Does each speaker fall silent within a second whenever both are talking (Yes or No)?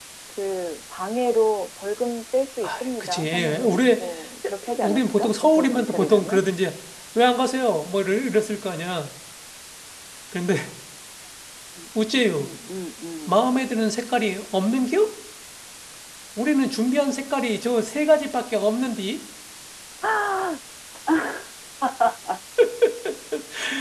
No